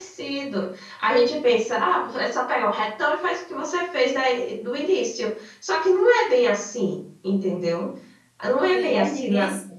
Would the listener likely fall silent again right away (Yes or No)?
No